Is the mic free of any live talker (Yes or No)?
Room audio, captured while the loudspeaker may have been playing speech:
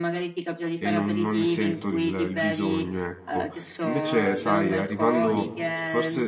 No